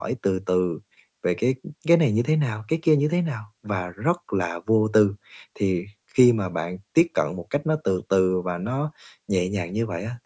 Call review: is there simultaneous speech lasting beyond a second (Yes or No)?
No